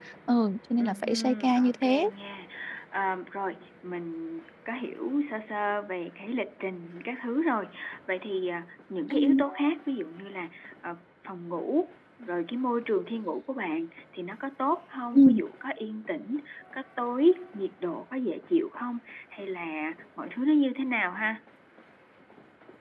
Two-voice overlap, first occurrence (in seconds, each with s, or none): 0.8 s